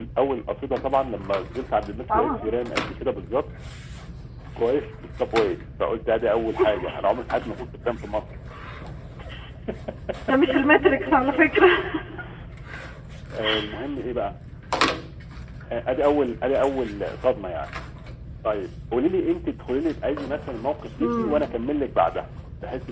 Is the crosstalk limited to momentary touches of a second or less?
Yes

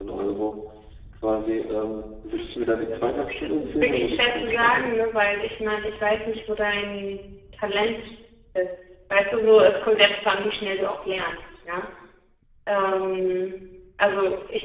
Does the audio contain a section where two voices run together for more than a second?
Yes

